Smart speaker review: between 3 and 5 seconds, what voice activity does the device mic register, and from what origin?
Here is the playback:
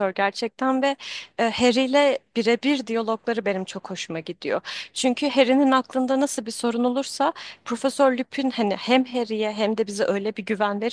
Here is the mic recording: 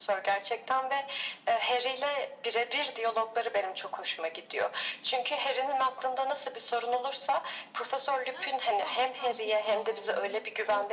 echo only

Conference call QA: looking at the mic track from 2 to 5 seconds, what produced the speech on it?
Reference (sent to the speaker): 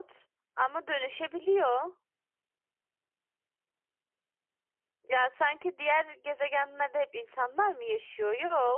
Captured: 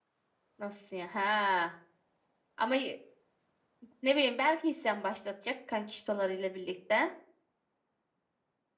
user only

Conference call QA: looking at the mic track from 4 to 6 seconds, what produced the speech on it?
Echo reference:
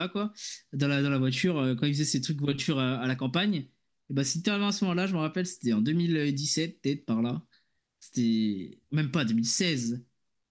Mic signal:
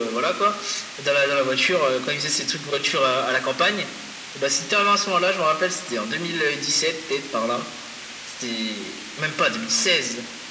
echo only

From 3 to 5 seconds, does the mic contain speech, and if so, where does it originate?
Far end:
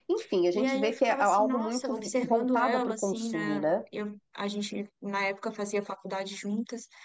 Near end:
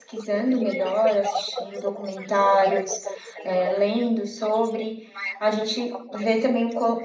both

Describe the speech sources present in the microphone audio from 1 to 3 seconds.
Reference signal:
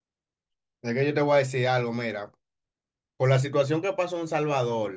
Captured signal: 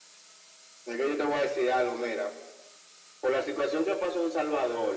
echo only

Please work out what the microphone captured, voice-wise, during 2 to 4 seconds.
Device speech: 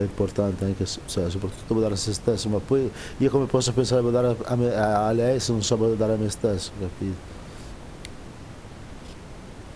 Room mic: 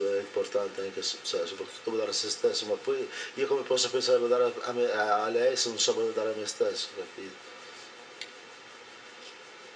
echo only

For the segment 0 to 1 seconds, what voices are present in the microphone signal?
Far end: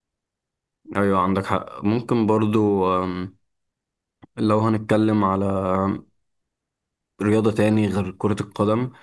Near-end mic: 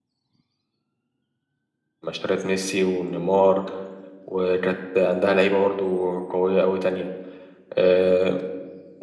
neither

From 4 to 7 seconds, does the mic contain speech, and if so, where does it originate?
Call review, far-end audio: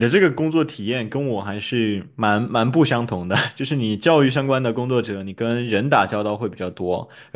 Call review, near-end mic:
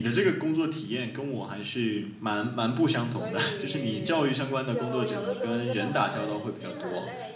both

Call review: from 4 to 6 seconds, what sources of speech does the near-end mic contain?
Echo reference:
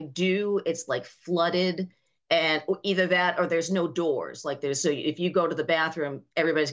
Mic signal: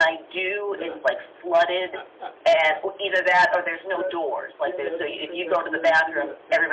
both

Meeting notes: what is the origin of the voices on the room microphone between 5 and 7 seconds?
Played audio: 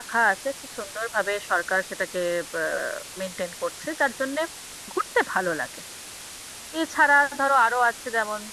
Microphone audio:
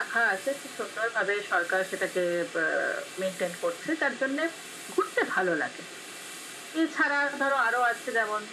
echo only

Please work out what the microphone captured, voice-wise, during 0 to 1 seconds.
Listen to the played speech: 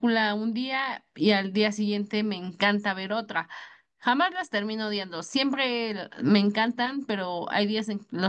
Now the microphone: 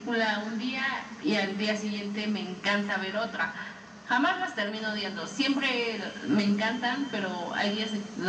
echo only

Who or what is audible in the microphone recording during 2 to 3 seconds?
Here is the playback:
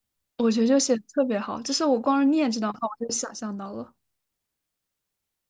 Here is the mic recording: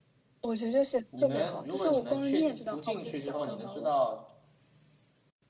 both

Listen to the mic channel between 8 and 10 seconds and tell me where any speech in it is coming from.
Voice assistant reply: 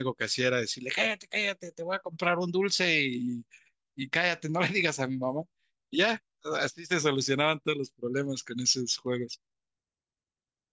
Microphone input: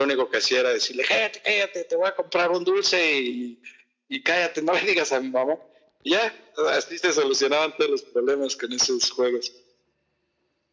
echo only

